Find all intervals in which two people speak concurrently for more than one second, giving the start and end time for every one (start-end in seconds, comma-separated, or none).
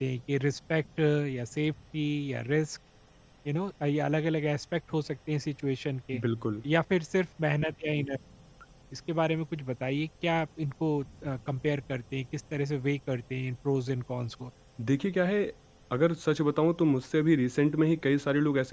none